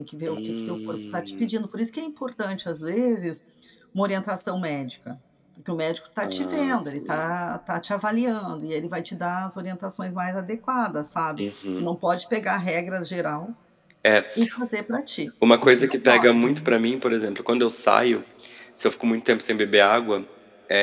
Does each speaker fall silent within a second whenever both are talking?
No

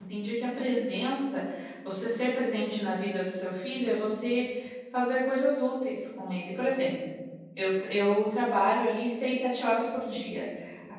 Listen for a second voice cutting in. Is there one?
No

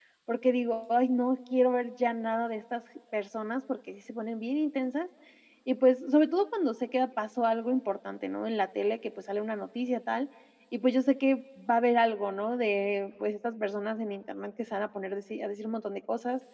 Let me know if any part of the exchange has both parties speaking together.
No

